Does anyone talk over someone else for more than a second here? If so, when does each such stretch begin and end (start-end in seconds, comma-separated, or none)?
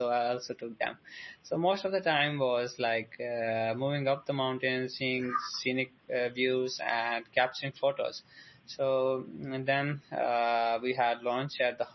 none